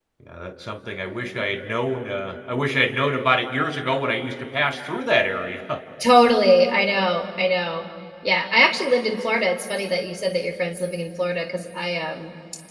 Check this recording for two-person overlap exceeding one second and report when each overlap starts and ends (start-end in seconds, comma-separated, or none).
none